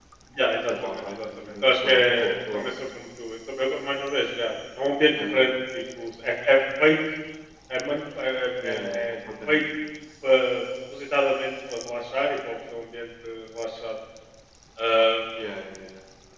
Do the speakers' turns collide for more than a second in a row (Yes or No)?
Yes